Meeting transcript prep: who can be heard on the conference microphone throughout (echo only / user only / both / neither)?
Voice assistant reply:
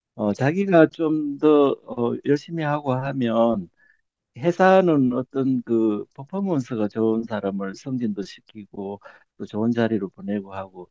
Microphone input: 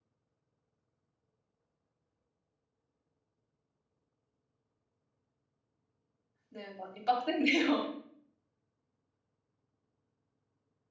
user only